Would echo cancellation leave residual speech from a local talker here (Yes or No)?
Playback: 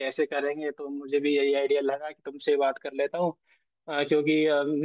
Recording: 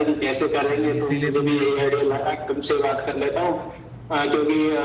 Yes